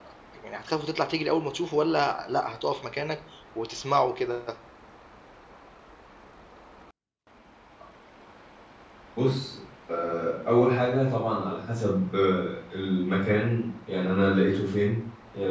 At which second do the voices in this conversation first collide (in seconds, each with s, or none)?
none